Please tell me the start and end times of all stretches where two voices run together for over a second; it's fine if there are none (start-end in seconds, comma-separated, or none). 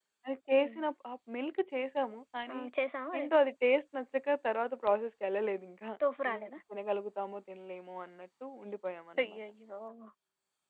none